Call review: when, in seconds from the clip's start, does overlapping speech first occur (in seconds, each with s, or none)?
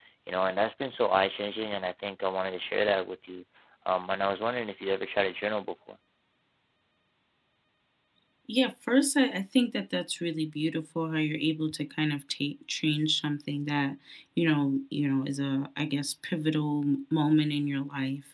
none